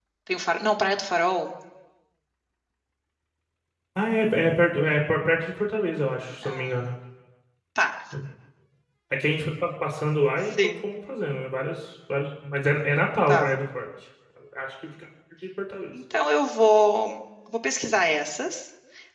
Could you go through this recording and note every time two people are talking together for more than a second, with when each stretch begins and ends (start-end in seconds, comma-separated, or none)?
none